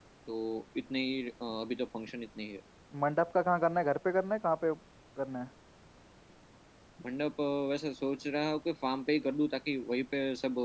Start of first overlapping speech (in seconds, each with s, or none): none